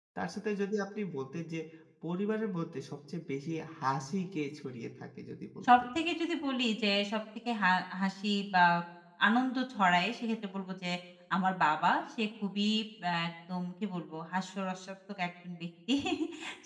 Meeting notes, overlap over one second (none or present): none